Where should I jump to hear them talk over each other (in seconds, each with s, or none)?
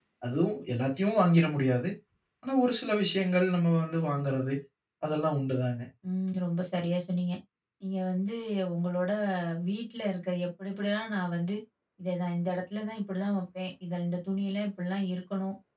none